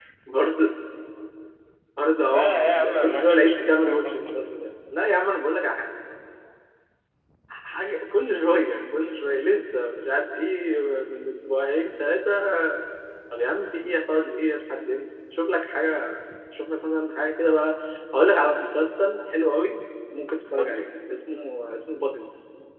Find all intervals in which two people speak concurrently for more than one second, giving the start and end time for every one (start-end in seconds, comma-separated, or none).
2.2-3.9